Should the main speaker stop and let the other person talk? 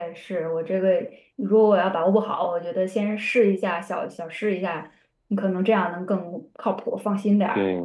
Yes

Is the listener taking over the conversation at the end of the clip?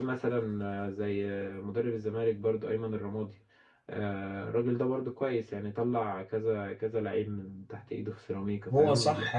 Yes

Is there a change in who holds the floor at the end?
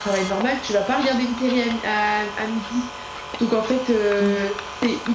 No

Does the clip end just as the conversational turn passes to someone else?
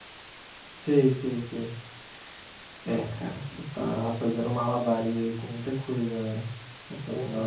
No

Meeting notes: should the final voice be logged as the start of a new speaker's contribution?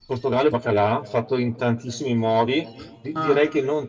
No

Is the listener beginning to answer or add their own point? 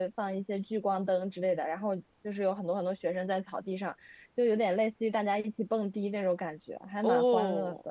Yes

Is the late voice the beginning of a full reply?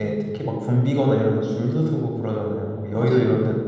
Yes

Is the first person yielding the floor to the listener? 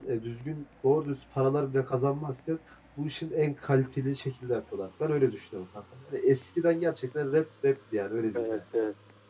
Yes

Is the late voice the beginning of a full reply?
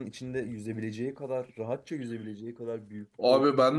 Yes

